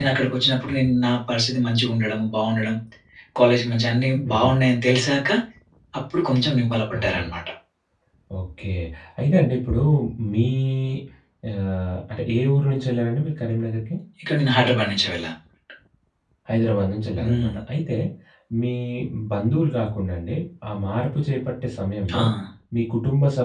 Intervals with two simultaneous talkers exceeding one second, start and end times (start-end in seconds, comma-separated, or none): none